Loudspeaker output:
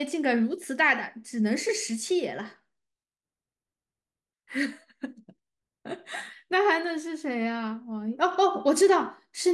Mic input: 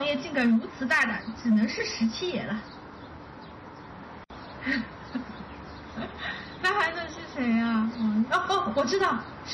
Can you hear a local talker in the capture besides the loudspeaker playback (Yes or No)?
No